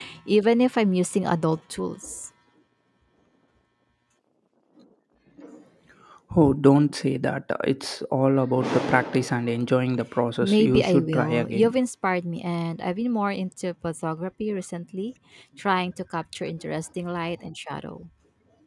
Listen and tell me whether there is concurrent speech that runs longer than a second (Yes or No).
Yes